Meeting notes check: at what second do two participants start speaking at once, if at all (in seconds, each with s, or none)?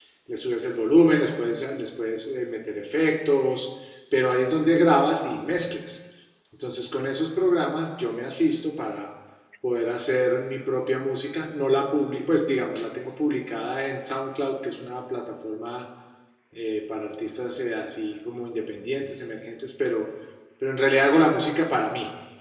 none